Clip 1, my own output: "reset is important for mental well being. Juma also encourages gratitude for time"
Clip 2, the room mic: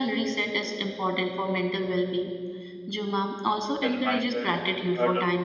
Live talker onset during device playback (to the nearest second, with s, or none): 4 s